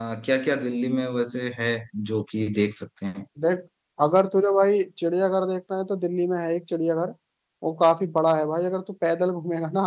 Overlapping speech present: No

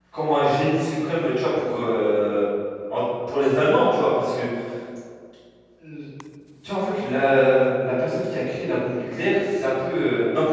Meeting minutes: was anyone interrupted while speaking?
No

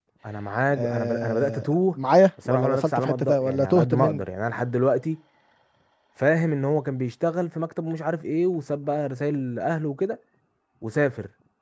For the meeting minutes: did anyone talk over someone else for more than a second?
Yes, from 0.7 s

